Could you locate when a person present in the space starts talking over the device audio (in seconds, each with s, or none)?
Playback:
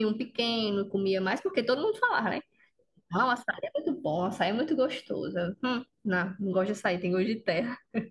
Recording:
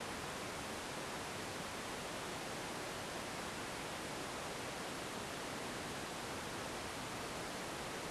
none